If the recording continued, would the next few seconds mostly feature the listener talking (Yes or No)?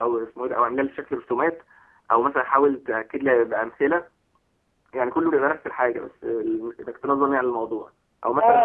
Yes